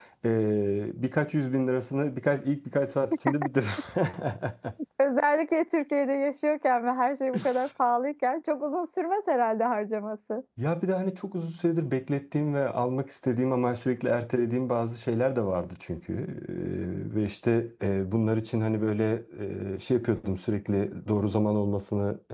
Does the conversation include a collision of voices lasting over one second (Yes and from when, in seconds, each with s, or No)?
No